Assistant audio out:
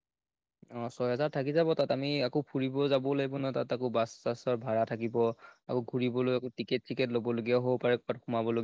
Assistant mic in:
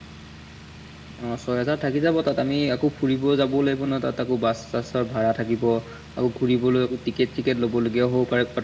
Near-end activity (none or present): none